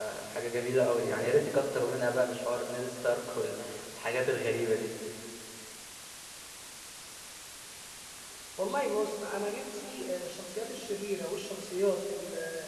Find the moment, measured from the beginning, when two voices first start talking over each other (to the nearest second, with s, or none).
none